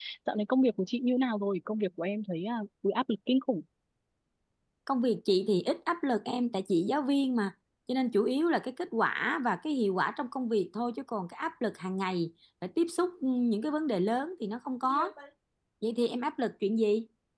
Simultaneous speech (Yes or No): No